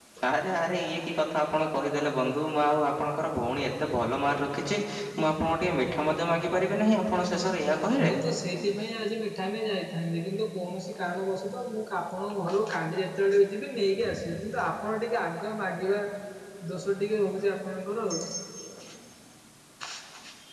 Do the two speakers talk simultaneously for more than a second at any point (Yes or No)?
No